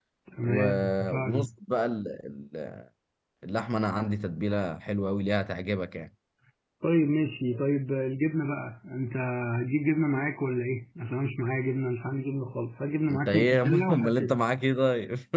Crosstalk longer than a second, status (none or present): present